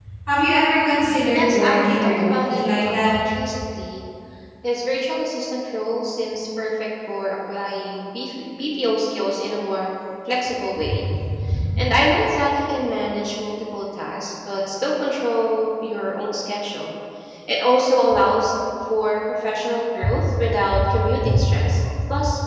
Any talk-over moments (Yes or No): Yes